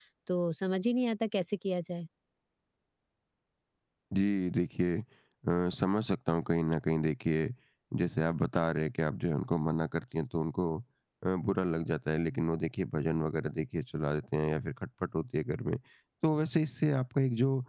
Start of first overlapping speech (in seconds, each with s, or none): none